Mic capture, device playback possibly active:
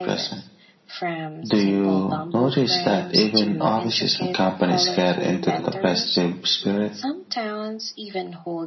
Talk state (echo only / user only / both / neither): both